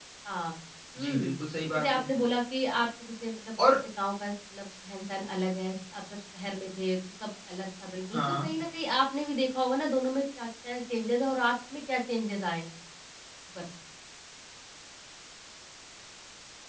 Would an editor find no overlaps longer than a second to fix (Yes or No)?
Yes